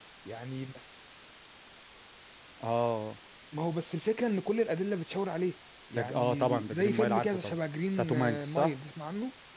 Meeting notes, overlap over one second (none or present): present